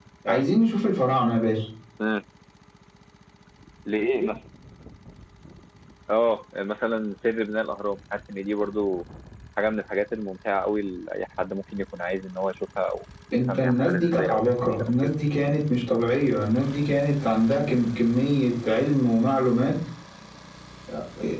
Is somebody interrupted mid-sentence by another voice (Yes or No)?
Yes